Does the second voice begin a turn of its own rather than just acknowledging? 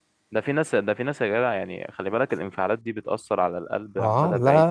Yes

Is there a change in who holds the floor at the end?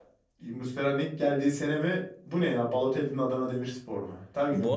Yes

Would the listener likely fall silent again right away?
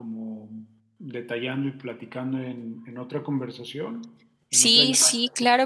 No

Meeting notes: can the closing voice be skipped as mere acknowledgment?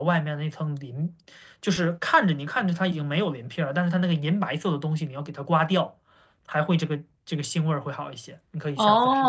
No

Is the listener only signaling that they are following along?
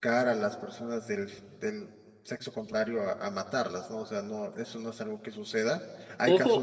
No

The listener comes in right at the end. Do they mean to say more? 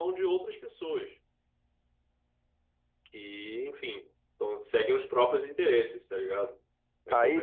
Yes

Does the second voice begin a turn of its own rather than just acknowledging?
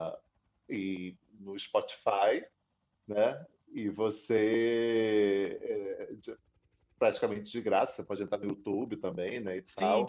Yes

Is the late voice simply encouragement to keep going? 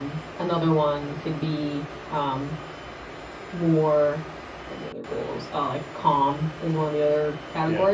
Yes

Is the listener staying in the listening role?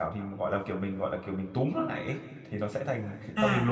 No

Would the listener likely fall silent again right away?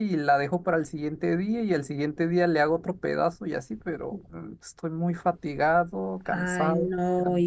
No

